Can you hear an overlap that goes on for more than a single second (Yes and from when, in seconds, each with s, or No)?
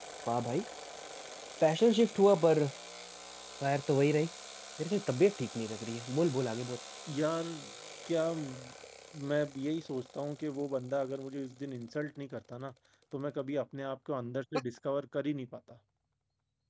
No